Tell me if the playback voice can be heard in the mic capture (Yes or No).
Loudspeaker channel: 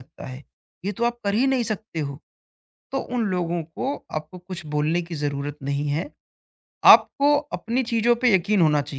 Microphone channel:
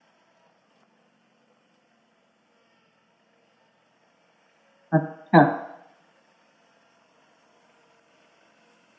No